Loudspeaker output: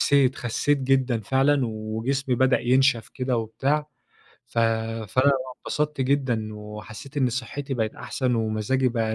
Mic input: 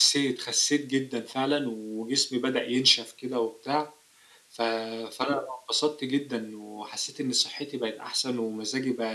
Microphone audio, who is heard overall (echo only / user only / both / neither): echo only